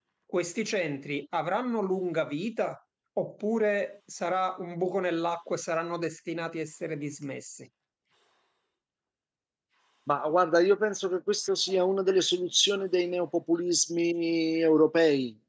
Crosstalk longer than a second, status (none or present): none